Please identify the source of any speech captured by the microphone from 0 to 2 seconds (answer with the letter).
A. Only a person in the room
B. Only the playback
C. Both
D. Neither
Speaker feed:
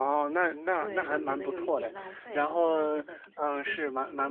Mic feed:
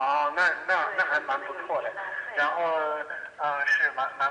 B